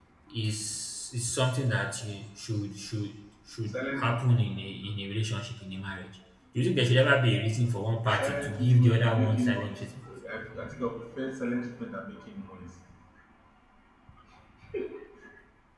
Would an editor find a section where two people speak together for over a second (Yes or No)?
Yes